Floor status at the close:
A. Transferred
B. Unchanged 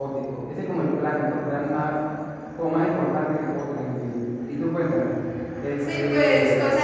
A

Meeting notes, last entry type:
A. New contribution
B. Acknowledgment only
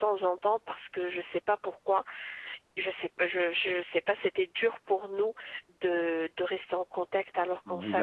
A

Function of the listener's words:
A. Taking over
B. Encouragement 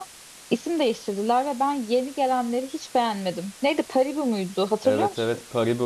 A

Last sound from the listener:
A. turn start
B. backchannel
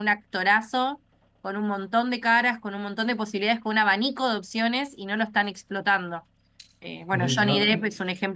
B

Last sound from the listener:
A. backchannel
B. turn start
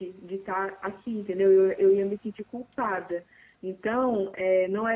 A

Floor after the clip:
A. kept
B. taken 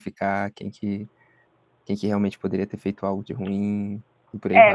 B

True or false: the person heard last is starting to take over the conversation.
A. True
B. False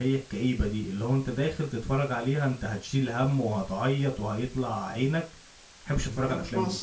A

